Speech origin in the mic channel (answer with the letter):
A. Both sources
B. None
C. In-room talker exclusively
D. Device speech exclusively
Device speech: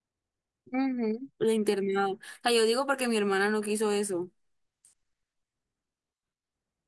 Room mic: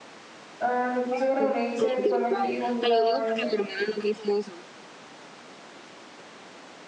A